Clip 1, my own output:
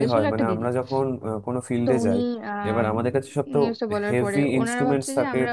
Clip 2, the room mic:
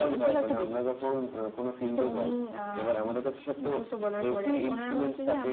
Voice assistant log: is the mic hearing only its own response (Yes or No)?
Yes